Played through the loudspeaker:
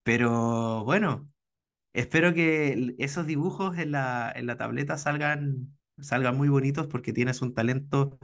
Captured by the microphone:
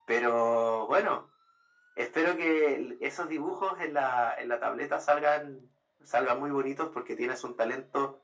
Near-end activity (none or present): none